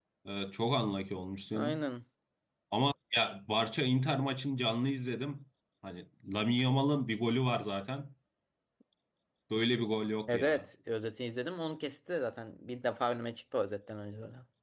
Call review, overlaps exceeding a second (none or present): none